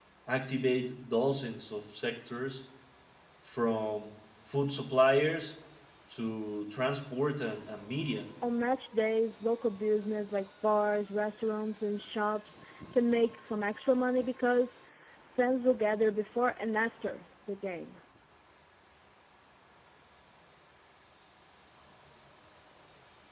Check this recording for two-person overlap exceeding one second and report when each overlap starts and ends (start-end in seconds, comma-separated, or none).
none